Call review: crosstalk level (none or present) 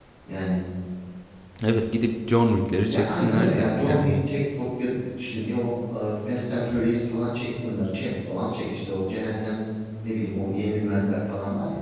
present